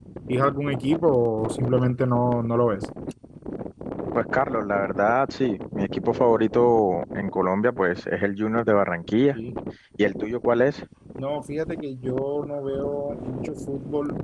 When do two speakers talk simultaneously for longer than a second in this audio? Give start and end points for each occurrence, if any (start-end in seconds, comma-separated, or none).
none